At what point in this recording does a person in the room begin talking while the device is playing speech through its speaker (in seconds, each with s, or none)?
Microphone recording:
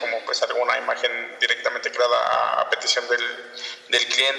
none